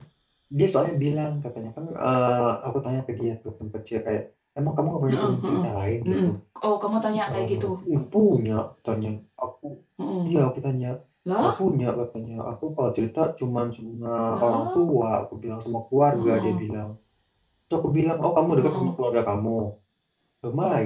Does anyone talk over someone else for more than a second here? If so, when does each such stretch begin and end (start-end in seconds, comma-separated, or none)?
none